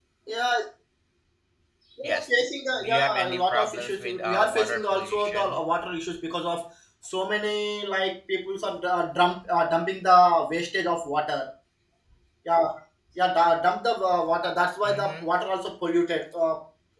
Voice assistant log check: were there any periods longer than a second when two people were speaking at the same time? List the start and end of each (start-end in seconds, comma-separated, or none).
2.8-5.6